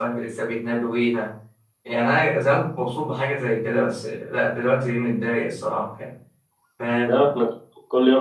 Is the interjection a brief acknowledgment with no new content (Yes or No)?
No